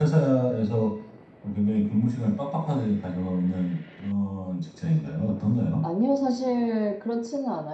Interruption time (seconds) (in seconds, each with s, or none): none